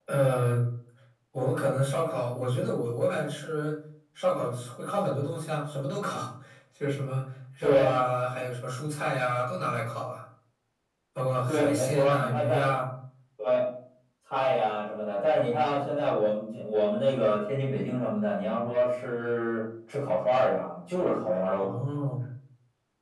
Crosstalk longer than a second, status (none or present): present